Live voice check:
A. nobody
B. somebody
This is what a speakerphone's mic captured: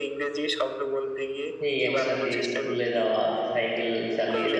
B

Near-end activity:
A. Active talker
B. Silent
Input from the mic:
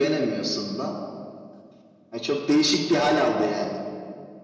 B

